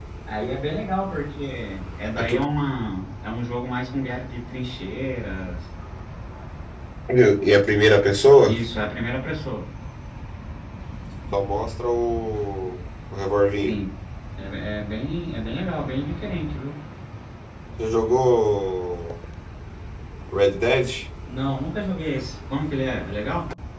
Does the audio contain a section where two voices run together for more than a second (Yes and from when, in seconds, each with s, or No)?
No